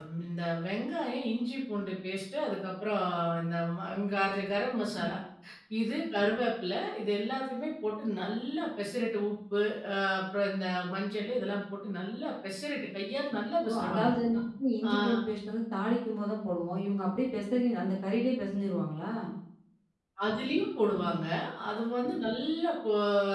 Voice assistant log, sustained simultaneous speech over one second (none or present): none